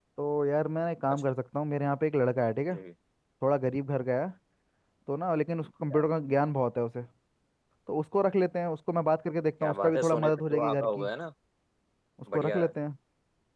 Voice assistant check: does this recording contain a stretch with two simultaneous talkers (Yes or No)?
Yes